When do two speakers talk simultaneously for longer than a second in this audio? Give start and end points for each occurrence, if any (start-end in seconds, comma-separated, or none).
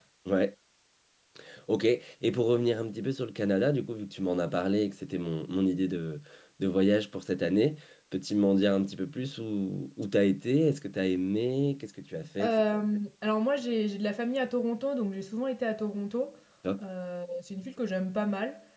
none